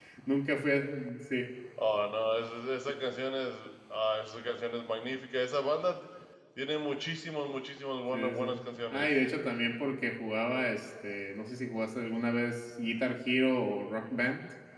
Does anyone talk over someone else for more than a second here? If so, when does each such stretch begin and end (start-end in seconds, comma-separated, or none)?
none